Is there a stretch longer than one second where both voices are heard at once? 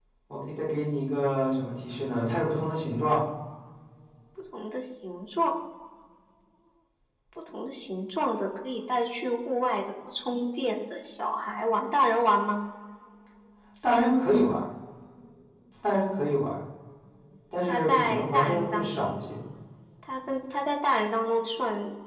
Yes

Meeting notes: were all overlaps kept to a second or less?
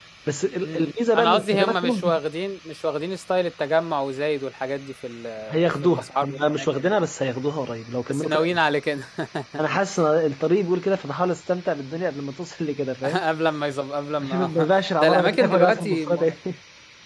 No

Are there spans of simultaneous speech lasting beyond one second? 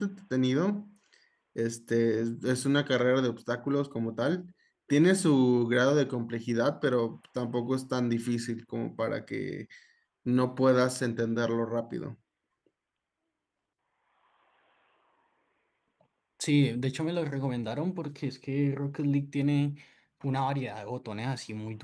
No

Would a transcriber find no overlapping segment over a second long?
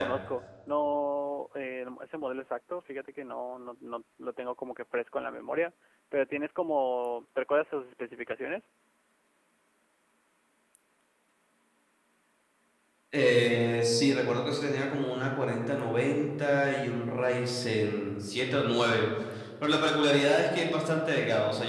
Yes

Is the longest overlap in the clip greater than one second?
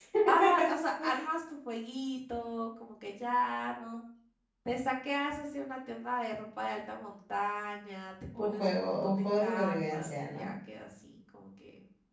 Yes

